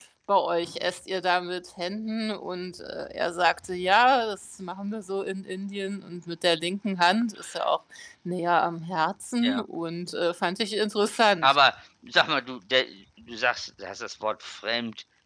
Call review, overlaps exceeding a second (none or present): none